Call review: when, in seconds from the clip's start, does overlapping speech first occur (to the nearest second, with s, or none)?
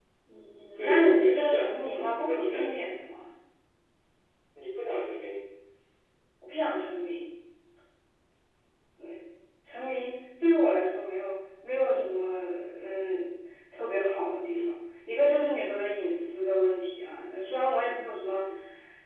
1 s